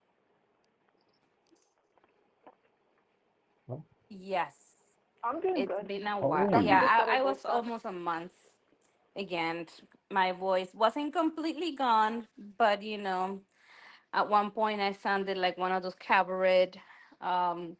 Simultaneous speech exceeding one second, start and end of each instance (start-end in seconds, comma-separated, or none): 6.2-7.7